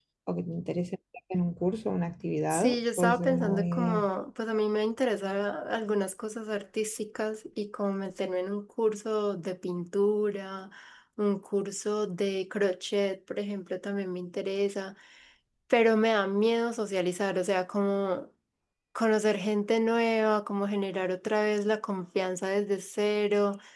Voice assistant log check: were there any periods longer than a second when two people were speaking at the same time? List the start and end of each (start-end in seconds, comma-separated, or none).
2.5-4.1